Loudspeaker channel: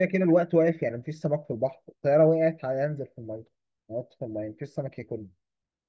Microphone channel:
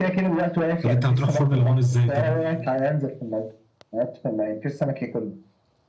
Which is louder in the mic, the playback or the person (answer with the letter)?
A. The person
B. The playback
A